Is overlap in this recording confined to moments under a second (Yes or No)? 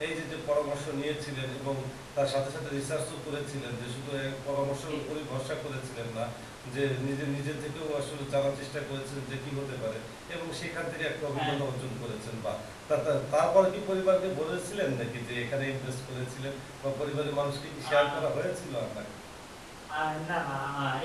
Yes